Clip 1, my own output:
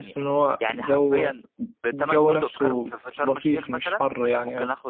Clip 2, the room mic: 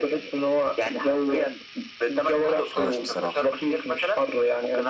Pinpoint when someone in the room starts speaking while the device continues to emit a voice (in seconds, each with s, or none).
2.4 s